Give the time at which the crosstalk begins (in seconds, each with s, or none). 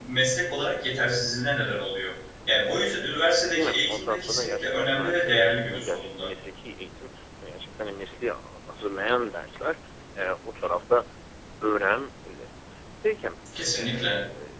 3.4 s